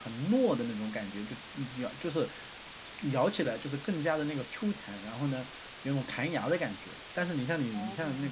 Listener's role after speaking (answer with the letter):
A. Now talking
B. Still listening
B